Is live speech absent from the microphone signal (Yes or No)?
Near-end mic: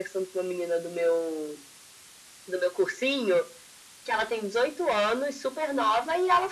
Yes